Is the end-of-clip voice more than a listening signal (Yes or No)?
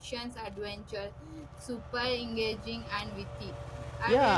Yes